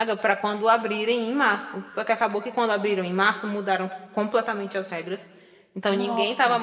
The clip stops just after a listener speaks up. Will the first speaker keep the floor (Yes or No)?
Yes